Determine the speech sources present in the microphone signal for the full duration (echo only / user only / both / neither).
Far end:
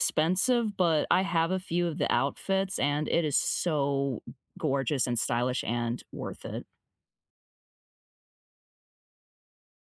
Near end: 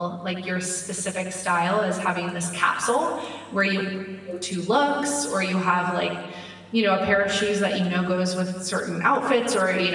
user only